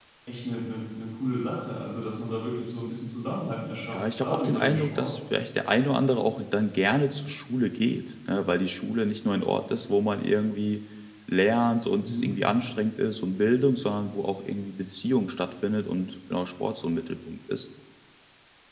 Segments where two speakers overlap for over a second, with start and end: 3.9-5.2

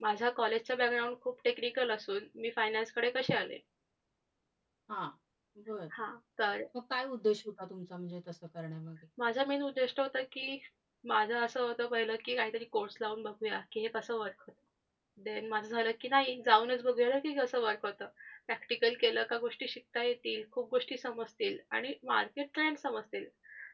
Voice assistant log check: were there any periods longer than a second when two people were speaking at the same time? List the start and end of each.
none

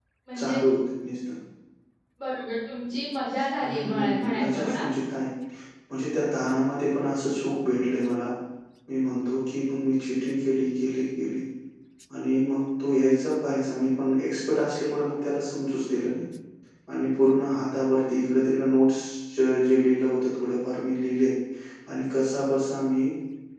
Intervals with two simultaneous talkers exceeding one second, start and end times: 3.6-4.8

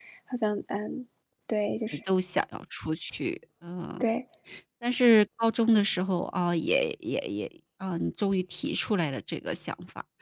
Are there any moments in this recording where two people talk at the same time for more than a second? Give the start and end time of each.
none

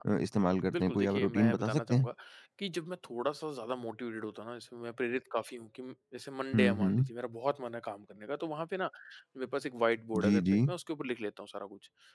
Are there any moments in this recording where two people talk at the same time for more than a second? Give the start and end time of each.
0.7-2.1

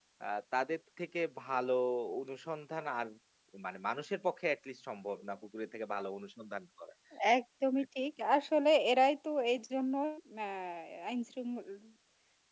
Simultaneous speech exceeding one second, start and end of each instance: none

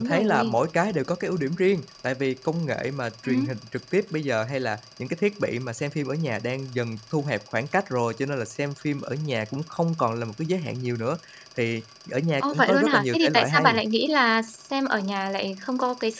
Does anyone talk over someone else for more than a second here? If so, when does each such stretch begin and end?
12.4-13.7

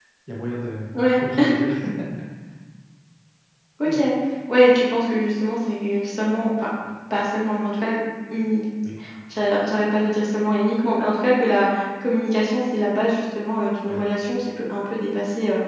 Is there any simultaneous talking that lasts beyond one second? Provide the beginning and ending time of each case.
none

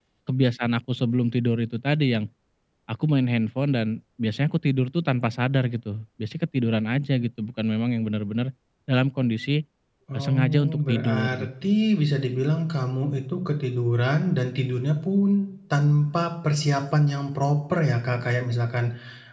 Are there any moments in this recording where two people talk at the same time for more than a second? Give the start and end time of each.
10.1-11.5

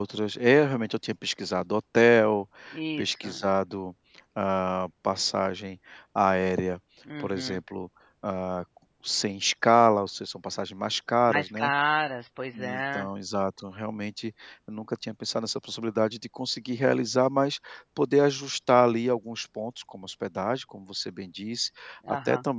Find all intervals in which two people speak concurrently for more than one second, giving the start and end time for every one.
none

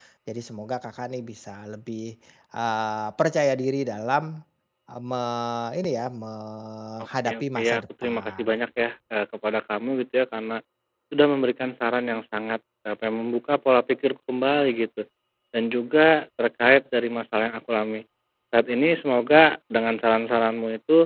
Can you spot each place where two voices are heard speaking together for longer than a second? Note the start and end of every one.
7.3-8.6

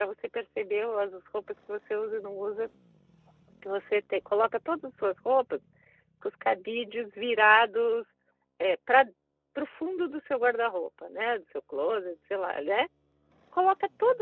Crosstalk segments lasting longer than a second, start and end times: none

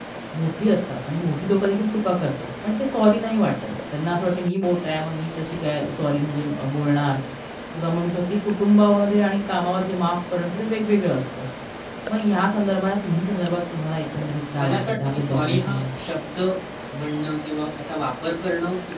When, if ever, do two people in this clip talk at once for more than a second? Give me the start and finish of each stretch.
14.6-15.8

